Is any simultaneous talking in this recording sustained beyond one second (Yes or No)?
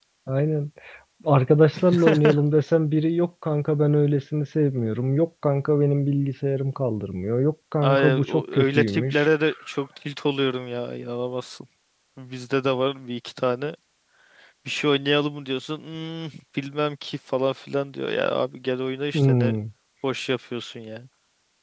Yes